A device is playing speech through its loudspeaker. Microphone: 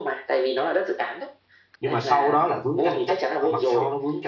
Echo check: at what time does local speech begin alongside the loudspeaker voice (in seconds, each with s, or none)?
1.8 s